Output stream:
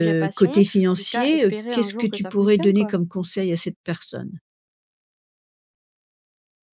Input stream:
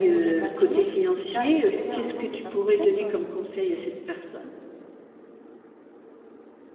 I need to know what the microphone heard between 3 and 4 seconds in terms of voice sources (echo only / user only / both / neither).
echo only